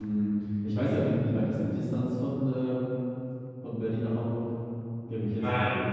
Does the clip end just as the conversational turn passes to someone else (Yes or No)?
Yes